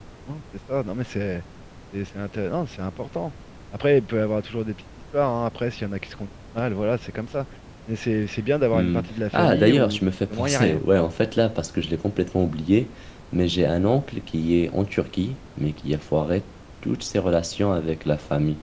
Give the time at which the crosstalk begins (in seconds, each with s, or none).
8.7 s